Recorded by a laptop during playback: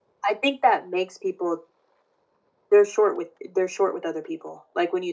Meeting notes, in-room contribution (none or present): none